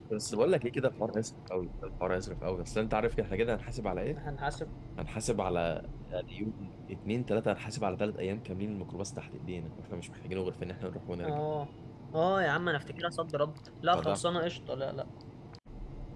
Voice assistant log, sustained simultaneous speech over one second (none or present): none